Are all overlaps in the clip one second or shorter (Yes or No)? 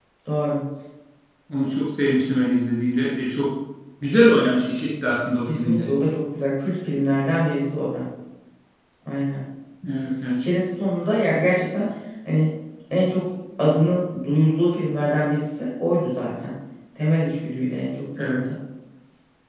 Yes